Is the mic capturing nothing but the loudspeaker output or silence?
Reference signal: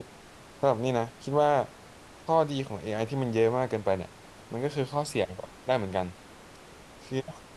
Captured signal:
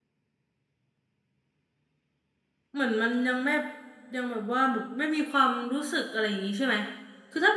No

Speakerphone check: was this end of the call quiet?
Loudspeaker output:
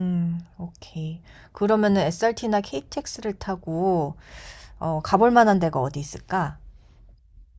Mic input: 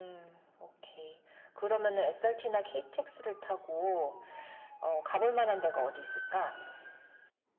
Yes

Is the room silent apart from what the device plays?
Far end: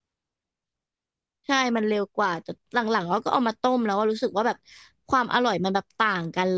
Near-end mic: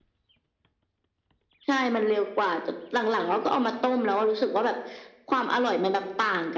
Yes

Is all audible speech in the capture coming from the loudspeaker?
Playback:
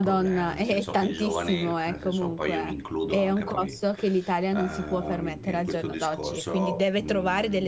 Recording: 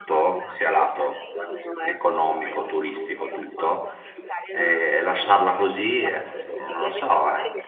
No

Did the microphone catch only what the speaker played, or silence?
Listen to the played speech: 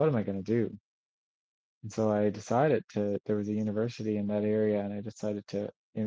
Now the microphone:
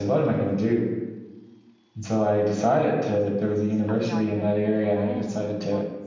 No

